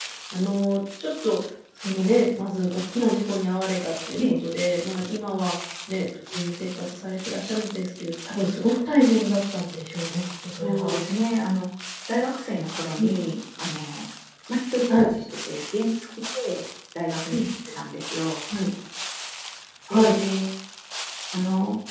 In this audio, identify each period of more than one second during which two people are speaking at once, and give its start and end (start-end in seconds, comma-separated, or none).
none